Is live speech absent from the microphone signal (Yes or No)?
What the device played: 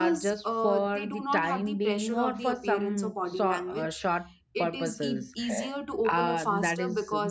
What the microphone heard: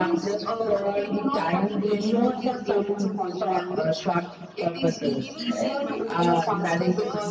No